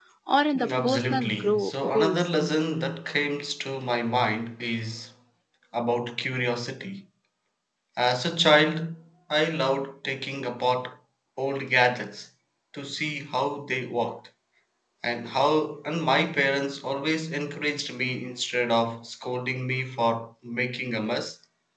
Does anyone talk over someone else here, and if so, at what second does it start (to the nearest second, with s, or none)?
1 s